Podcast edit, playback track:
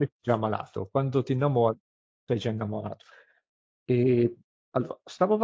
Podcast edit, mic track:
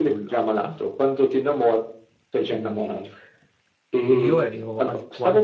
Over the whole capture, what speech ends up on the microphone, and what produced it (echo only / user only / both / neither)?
both